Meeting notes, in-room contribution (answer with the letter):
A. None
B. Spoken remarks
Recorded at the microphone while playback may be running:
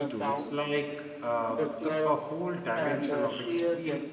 B